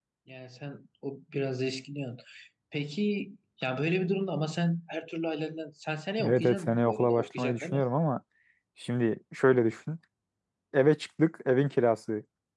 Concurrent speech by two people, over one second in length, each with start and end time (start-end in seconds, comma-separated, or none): 6.2-7.8